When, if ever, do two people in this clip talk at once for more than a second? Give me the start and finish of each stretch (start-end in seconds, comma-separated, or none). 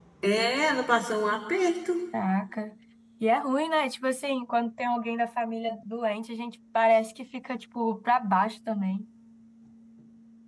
none